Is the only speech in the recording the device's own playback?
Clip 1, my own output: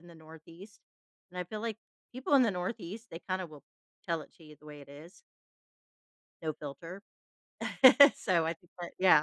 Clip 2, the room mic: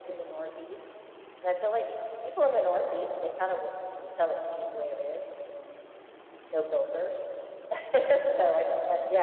Yes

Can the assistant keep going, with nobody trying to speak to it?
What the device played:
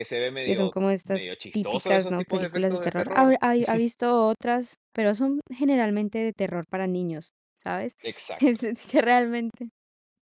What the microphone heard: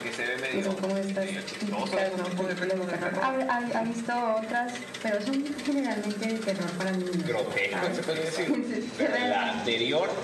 No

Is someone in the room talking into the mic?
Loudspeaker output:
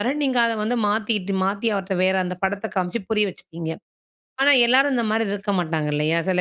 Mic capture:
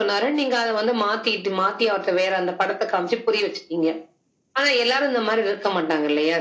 No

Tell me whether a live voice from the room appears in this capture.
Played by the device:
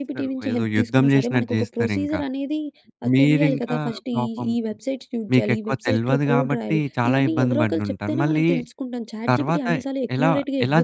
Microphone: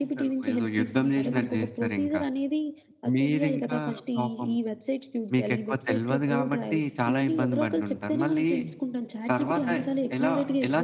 No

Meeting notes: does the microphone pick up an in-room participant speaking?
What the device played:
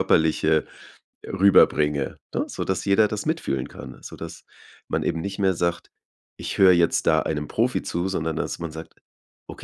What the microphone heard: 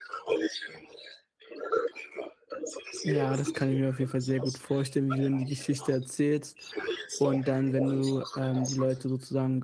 Yes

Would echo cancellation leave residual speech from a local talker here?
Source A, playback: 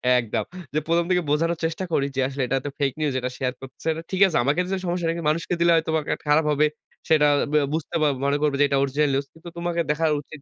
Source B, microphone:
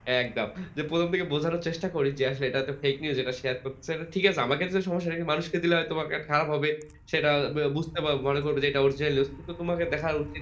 No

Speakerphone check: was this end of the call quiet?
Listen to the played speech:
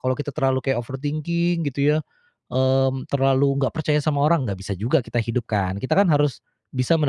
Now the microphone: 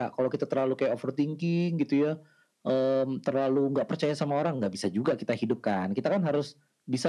Yes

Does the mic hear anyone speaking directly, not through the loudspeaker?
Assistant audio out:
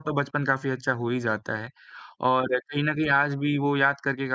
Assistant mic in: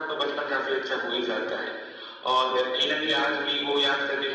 No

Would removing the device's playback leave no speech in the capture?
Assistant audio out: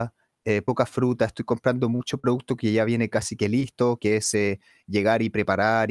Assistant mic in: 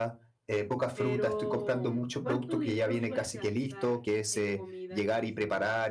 No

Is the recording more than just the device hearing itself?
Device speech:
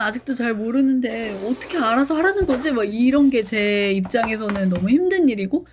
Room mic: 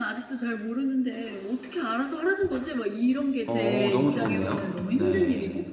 Yes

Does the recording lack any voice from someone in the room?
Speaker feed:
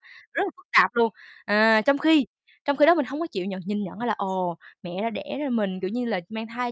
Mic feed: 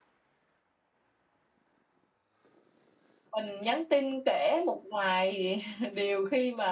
No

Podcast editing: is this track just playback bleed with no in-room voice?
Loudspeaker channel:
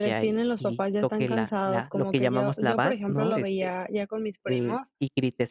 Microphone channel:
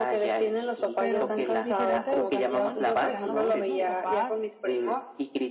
No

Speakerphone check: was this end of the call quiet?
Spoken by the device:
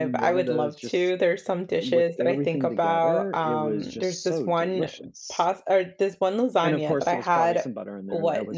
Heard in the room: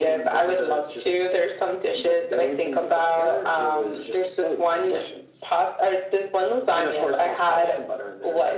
Yes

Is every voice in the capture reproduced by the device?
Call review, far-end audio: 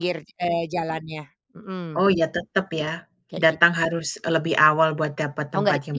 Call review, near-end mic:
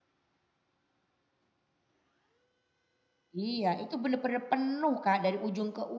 No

